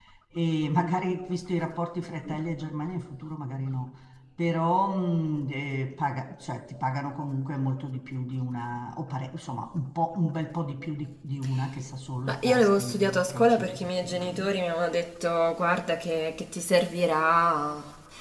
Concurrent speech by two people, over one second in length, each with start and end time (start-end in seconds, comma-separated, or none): 12.3-14.6